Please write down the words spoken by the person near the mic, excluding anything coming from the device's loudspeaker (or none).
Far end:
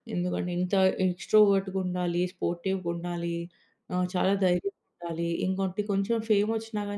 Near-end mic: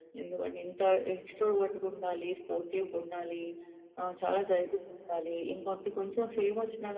none